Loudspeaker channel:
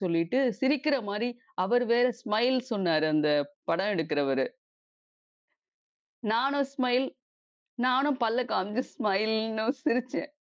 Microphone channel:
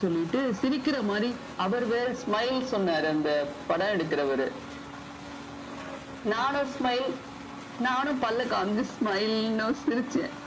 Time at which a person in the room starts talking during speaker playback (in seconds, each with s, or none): none